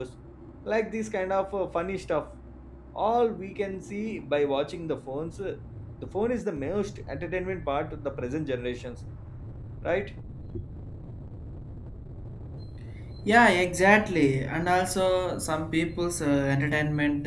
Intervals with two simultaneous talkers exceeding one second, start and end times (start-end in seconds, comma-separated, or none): none